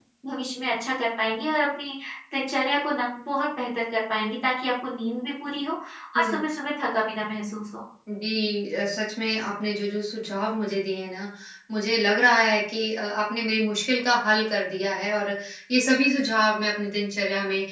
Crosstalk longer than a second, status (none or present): none